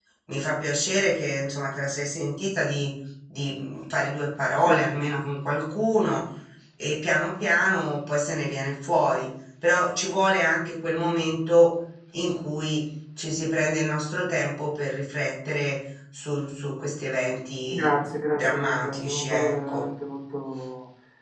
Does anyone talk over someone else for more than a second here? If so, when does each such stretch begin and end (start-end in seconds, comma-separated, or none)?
18.3-19.9